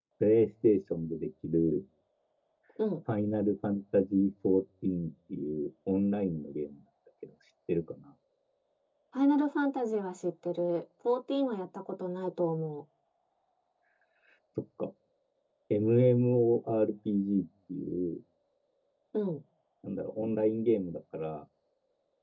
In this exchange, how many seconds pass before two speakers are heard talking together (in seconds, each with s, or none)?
none